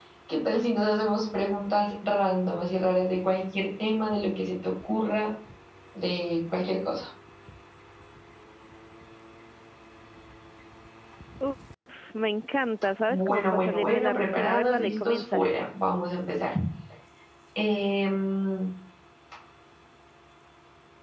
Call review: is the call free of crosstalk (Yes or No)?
No